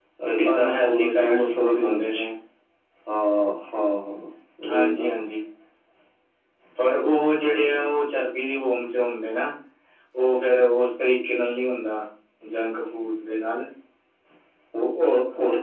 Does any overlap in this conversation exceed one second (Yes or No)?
Yes